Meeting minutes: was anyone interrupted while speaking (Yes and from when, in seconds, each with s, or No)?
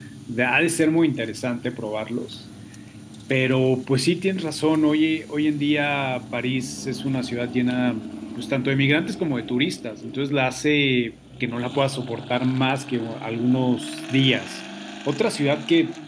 No